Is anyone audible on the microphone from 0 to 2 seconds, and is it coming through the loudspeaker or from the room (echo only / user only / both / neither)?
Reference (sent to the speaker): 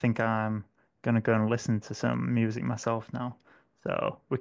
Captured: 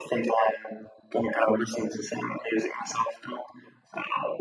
echo only